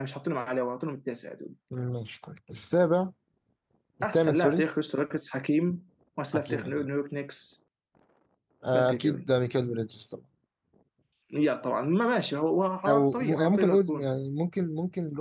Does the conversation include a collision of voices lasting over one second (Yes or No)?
Yes